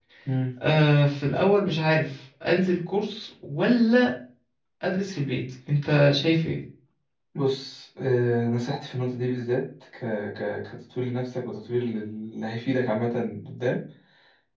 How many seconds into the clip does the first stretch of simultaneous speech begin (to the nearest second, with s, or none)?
none